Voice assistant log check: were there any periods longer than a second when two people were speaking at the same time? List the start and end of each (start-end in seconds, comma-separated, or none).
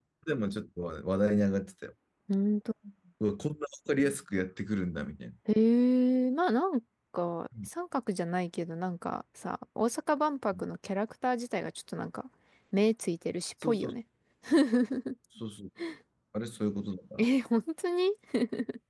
none